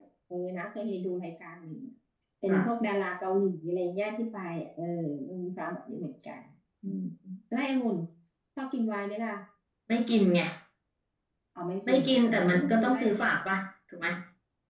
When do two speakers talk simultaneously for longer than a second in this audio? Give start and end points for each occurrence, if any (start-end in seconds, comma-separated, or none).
11.9-13.4